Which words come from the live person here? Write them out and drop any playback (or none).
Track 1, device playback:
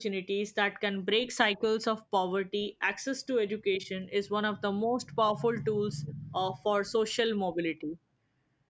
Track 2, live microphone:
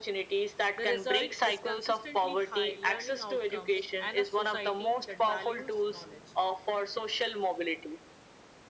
The result is consistently high learning outcomes and a society that values knowledge.